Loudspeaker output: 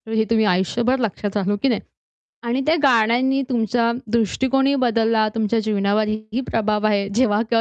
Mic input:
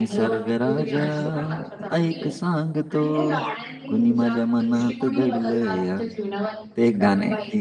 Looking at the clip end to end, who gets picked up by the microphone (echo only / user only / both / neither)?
both